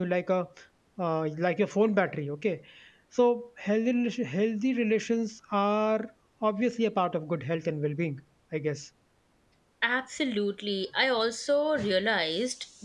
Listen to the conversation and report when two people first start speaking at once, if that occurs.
none

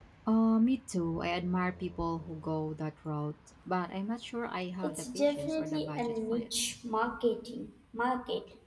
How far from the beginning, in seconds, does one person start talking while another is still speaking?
4.8 s

